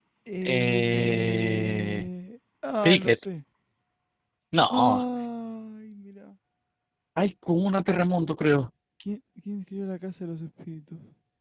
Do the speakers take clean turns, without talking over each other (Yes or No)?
No